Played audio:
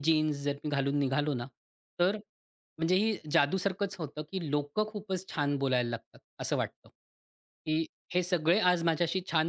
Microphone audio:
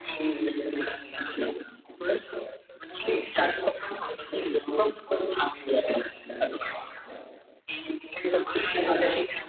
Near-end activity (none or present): none